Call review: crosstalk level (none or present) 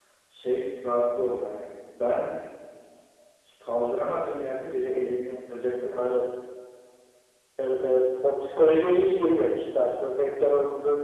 none